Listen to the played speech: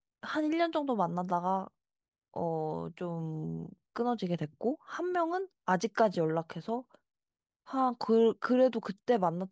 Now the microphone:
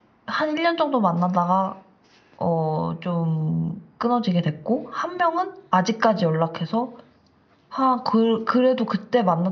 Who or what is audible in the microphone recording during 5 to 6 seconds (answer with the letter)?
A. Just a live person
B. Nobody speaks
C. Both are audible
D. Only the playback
D